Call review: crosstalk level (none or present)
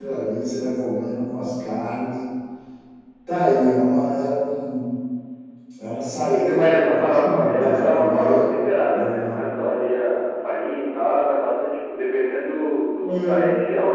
present